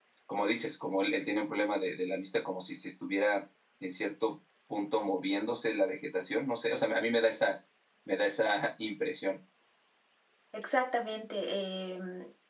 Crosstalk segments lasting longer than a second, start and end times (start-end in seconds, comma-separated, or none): none